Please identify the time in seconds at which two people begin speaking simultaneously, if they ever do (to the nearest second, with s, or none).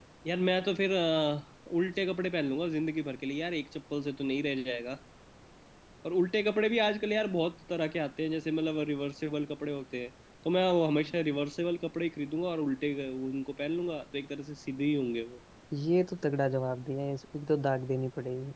none